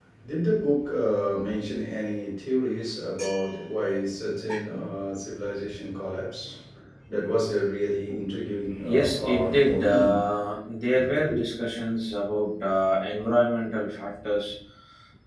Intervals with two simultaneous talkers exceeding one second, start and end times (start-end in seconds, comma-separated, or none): 8.9-10.2